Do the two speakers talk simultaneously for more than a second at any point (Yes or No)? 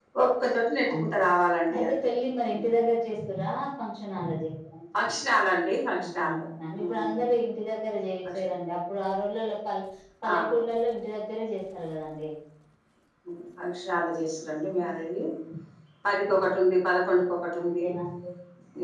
No